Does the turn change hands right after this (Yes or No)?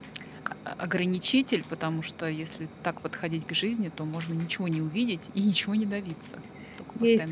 Yes